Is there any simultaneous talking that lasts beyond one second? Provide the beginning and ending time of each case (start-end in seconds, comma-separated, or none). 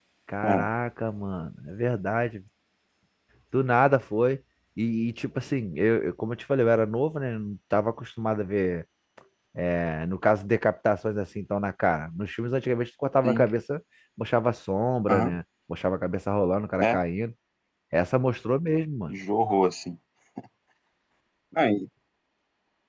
none